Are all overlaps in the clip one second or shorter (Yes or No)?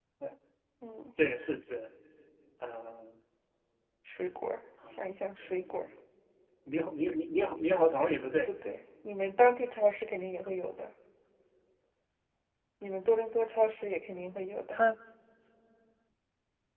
Yes